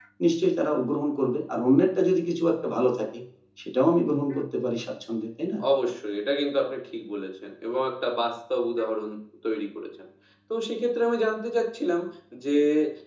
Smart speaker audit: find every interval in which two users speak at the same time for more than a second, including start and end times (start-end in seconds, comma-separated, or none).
none